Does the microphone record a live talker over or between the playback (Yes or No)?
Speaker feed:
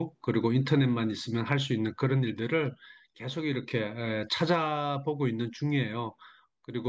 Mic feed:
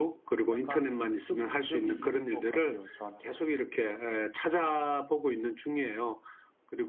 Yes